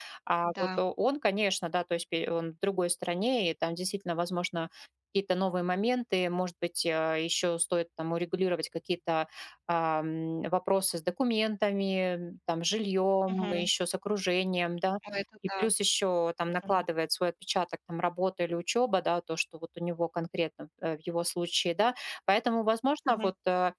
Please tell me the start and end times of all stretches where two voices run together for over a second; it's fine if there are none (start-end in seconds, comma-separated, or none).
none